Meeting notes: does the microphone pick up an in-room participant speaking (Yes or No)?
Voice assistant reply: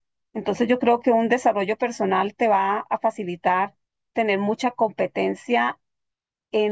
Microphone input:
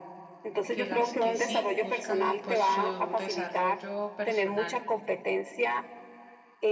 Yes